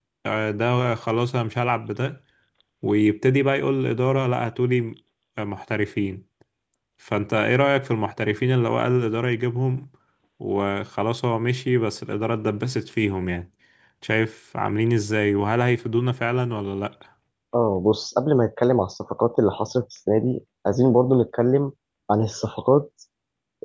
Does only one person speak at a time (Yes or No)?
Yes